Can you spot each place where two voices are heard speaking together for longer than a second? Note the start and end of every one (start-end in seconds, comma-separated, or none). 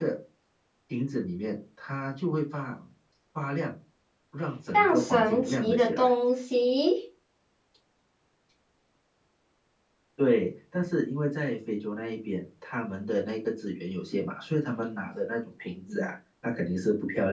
4.7-6.1